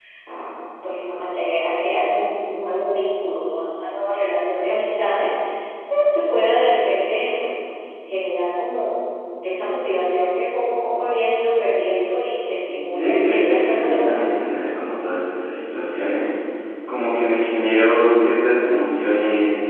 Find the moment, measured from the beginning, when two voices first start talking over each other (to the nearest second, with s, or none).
13 s